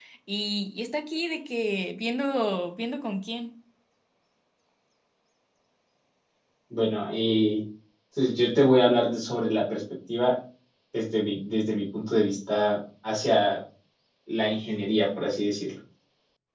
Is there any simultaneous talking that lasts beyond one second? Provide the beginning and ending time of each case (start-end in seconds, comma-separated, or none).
none